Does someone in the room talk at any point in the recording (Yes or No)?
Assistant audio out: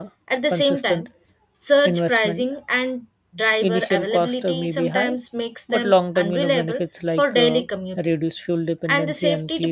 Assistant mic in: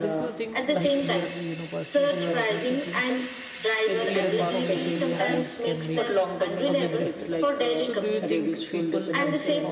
Yes